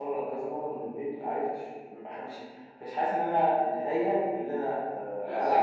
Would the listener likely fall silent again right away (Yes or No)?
No